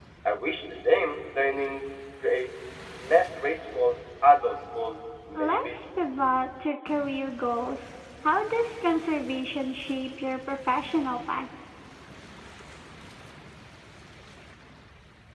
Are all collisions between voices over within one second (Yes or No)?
Yes